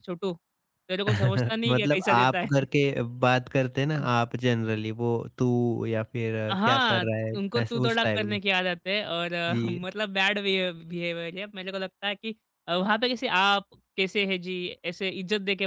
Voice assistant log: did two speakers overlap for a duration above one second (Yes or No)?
Yes